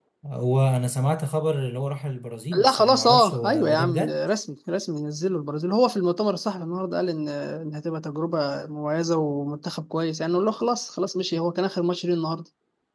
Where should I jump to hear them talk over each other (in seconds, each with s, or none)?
2.5 s